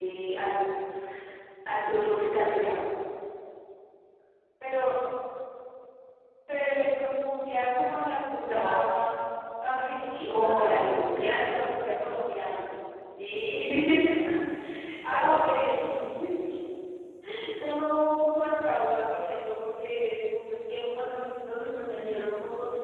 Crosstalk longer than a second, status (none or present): present